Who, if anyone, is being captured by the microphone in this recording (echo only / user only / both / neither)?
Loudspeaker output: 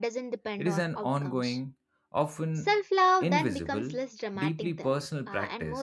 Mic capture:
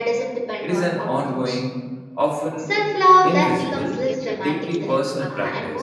both